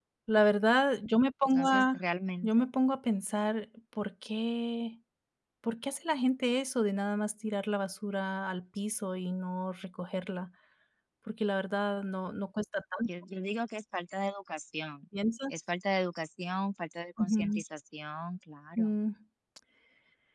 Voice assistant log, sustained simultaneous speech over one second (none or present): none